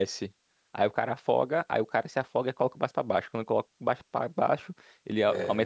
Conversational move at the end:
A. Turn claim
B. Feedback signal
B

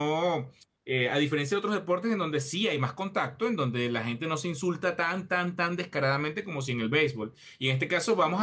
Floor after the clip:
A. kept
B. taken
A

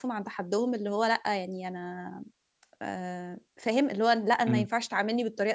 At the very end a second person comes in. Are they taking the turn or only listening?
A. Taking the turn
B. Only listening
B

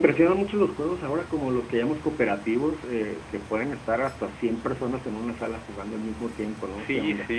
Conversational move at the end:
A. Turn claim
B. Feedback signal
A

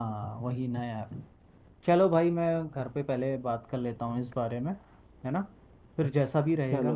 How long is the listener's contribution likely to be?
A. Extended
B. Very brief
B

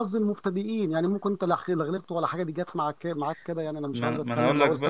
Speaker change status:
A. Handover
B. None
A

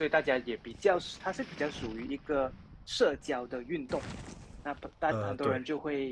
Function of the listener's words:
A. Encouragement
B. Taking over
A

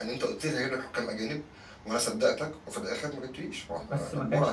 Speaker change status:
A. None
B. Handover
B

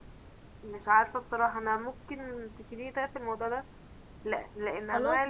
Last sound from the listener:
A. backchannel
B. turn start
A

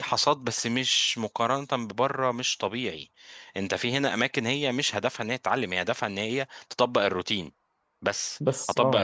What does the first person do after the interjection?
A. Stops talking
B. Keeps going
B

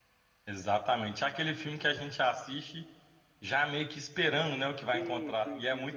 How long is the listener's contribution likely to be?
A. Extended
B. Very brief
A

